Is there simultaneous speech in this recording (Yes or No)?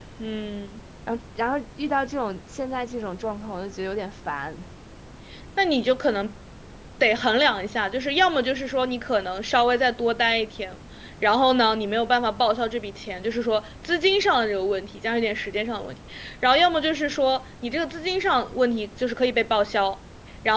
No